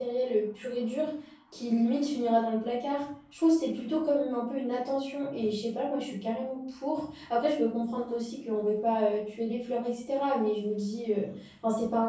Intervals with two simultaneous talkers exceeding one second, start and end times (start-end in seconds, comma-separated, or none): none